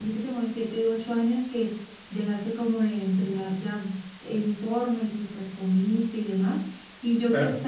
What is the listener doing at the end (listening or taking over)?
listening